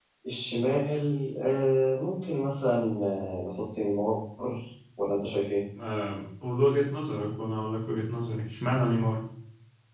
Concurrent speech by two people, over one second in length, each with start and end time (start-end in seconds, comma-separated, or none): none